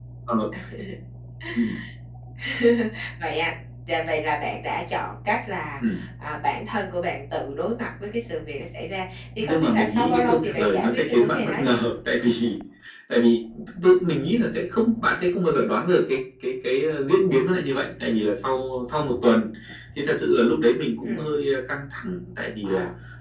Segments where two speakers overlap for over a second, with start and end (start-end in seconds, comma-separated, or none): 9.4-11.8